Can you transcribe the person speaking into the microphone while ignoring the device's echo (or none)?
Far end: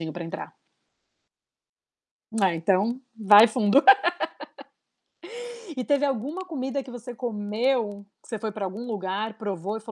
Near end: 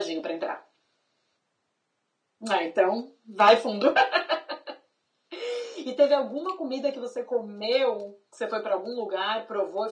none